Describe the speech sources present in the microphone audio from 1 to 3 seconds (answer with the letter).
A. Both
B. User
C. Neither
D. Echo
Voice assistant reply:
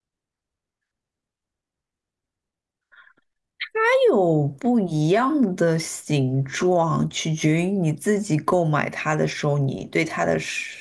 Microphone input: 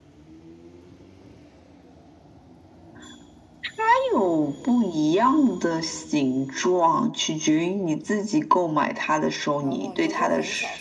C